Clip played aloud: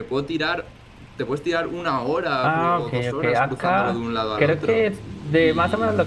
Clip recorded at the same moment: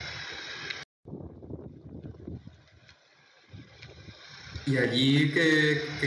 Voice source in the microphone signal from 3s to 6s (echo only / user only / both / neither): user only